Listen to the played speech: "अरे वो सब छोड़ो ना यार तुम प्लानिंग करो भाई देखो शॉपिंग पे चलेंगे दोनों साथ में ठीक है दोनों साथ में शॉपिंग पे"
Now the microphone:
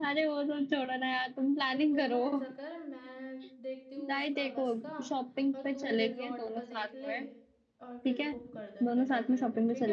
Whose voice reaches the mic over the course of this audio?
both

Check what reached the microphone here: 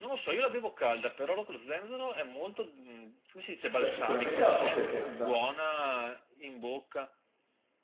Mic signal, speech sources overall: both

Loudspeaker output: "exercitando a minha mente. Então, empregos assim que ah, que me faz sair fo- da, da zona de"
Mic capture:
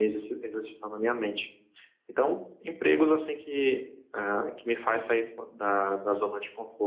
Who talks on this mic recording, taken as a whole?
echo only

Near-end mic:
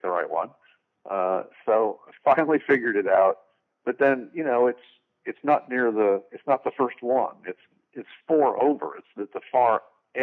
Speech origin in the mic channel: echo only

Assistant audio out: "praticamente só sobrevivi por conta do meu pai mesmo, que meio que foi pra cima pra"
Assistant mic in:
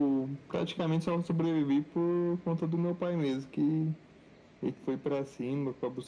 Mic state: echo only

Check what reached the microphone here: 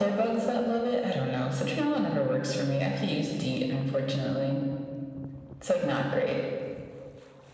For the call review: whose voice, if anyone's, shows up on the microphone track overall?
echo only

